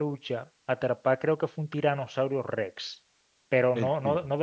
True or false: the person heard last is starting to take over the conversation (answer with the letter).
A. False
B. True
A